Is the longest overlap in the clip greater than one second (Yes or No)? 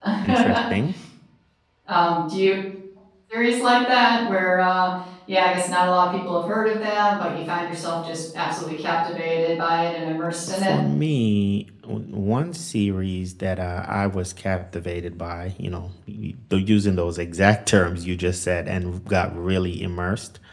No